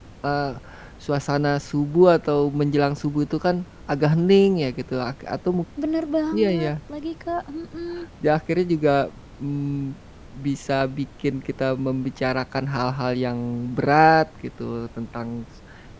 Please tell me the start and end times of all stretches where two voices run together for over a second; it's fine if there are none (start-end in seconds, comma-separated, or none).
none